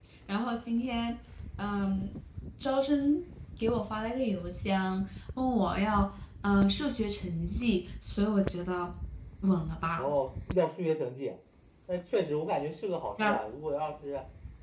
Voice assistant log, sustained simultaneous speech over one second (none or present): none